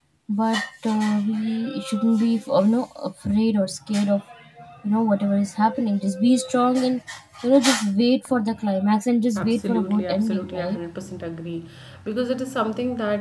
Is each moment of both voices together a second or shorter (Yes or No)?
No